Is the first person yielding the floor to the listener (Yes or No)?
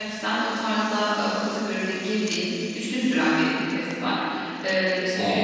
No